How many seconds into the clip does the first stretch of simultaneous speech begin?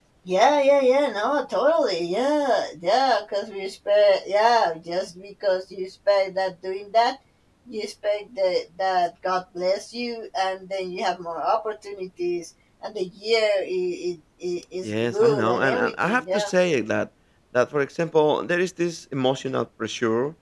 14.8 s

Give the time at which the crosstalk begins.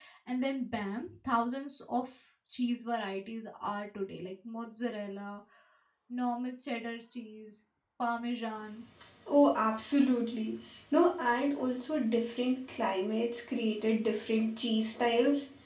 none

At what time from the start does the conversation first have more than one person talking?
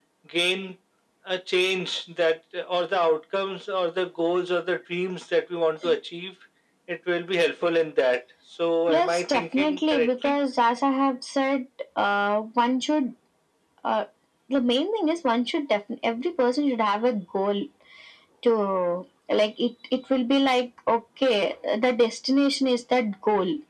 8.9 s

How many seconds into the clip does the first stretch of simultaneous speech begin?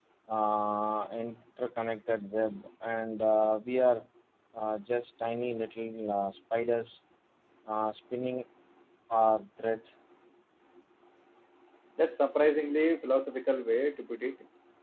none

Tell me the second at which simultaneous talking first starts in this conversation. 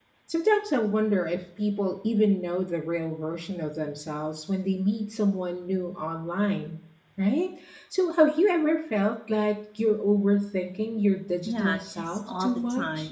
11.4 s

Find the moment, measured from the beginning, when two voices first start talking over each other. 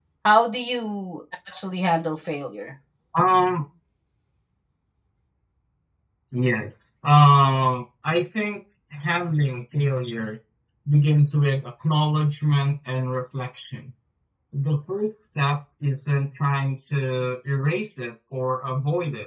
none

